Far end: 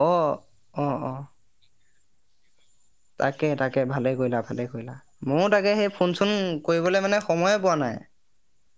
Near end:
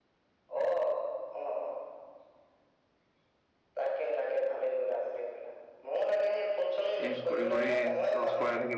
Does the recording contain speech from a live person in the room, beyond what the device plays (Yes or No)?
Yes